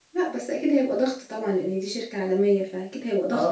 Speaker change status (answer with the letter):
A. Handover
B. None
A